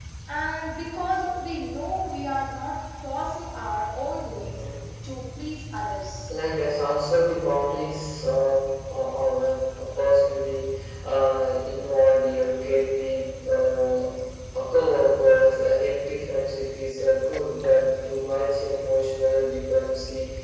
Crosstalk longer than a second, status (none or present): none